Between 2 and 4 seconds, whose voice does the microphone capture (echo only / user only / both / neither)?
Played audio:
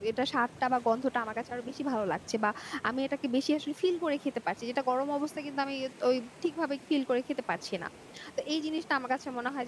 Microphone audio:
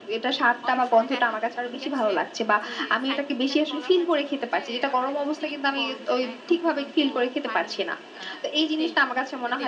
both